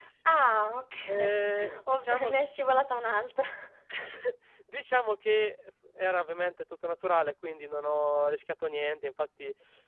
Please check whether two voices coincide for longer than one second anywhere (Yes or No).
Yes